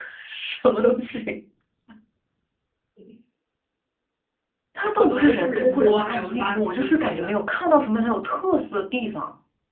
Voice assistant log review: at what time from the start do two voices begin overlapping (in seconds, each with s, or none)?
5.0 s